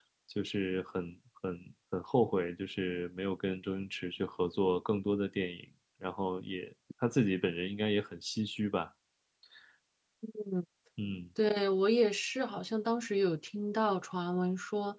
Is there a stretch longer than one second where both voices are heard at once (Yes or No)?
No